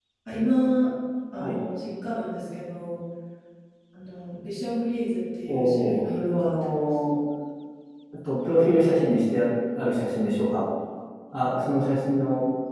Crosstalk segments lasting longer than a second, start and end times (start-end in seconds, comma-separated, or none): 5.5-6.8